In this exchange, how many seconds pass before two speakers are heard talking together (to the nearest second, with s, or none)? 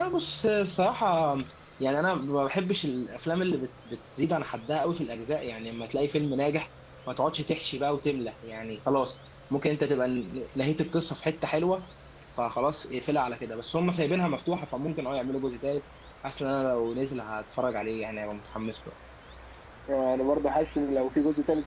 none